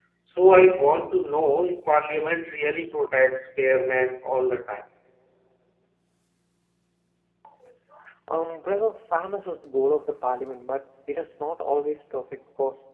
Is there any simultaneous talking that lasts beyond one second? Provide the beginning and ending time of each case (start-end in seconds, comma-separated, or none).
none